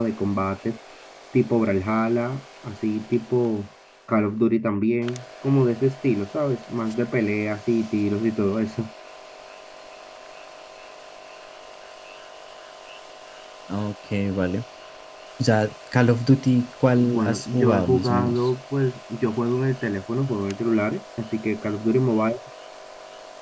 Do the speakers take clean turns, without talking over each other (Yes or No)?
No